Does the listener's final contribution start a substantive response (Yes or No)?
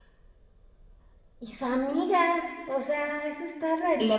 Yes